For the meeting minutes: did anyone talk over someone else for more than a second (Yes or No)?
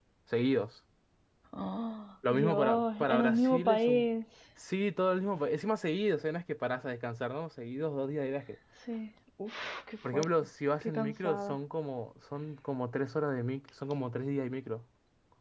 Yes